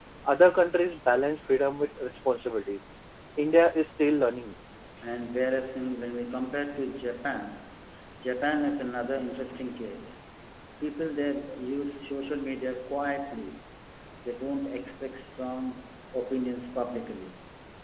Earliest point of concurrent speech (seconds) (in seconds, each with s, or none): none